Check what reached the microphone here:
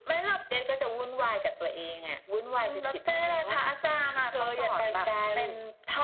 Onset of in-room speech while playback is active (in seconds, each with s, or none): none